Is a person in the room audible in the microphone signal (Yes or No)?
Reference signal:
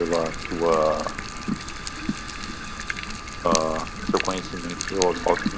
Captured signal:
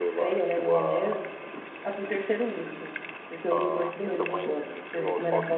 Yes